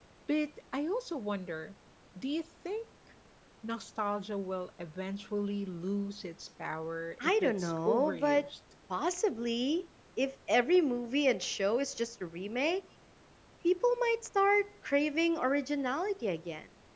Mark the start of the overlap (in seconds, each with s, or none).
7.2 s